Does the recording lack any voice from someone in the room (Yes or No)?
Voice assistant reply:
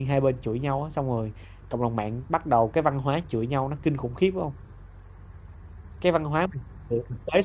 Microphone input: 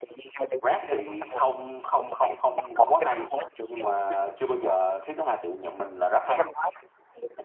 No